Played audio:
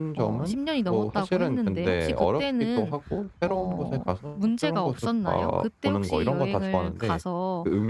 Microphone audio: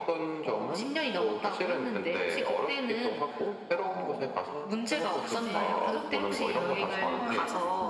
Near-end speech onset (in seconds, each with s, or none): 5.3 s